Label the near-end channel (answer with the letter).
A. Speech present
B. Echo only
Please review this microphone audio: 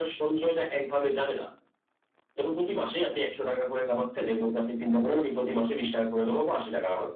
B